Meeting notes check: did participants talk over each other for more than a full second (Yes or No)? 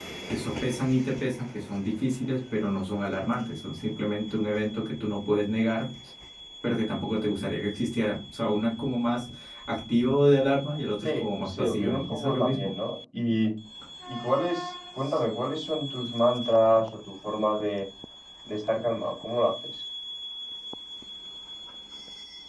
Yes